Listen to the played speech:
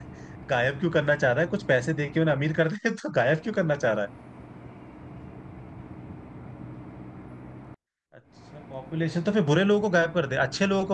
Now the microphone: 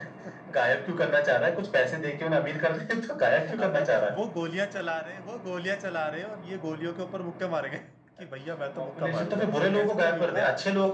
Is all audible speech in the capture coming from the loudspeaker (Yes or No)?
No